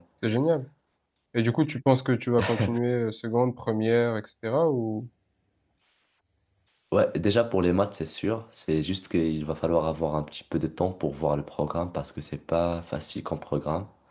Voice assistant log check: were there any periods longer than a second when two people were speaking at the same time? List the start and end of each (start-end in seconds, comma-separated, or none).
none